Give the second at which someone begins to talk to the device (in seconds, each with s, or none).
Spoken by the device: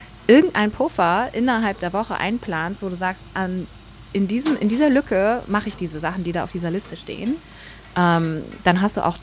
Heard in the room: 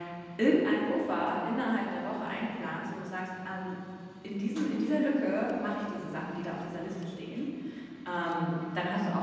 none